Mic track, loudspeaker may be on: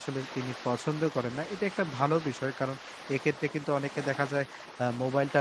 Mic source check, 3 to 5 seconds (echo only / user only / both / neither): user only